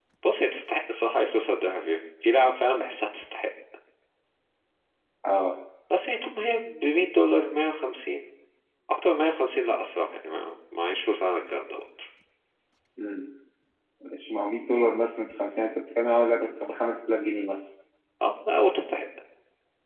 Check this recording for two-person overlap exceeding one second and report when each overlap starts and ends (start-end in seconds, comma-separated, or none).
none